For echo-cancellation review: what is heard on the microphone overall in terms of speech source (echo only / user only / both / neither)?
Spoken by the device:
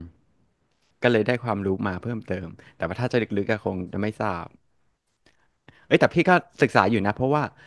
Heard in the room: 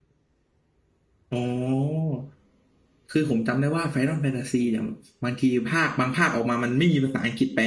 user only